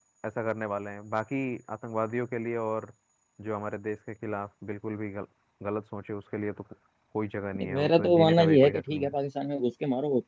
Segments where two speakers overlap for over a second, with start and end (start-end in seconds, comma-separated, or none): 7.6-9.1